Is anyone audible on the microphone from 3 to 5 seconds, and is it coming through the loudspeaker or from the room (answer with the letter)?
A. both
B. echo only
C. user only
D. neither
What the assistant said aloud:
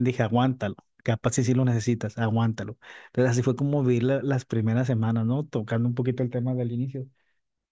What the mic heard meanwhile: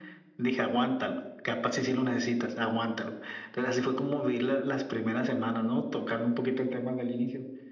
B